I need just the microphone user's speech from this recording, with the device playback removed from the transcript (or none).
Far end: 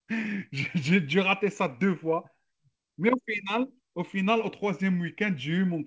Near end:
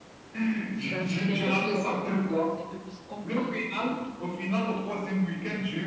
ça, c'est un peu plus en boule, quoi. C'est un peu plus compact et